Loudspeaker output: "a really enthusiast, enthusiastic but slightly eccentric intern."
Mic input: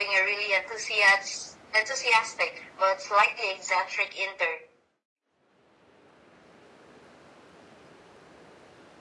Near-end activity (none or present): none